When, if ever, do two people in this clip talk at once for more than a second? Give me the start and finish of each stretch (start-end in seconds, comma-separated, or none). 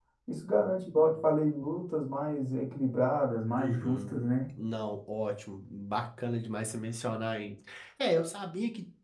none